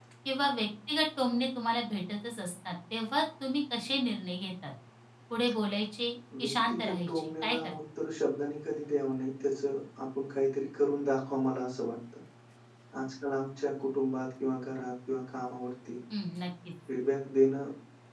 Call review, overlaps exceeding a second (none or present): present